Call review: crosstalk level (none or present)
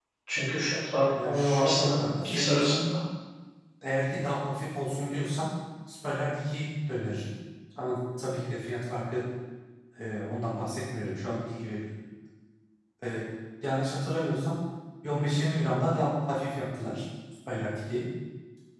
present